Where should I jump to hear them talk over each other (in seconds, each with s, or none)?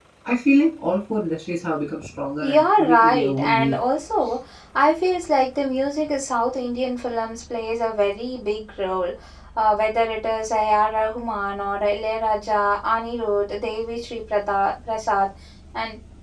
2.4 s